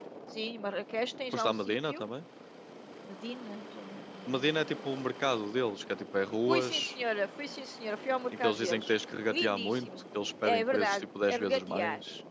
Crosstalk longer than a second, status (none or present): present